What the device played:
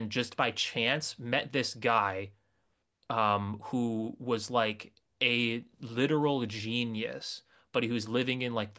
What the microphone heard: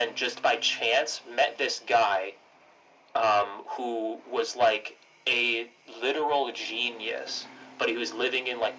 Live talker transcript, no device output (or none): none